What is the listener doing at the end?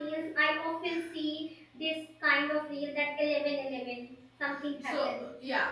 taking over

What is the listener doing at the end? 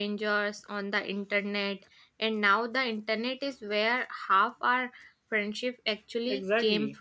taking over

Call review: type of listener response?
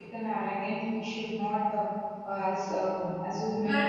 taking over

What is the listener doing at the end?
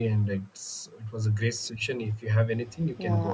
taking over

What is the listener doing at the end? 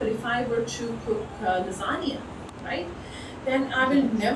listening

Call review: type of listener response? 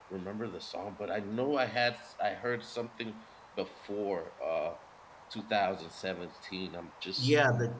taking over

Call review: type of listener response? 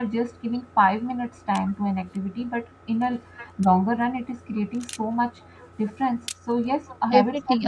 taking over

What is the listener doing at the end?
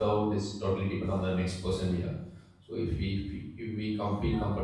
listening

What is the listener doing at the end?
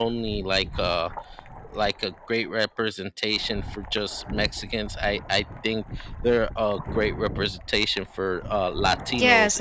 taking over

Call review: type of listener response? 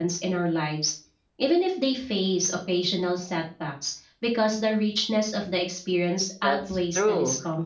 taking over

